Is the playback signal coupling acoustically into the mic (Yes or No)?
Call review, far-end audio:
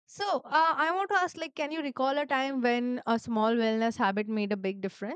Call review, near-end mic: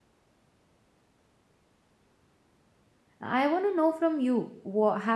No